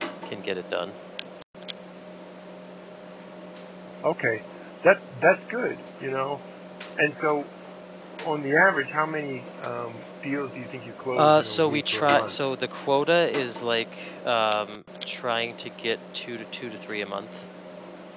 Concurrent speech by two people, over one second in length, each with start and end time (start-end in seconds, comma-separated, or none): 11.1-12.3